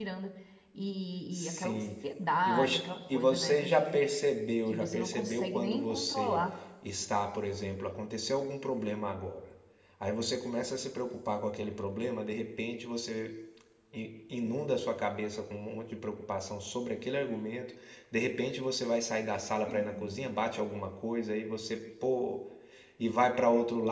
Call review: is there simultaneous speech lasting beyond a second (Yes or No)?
Yes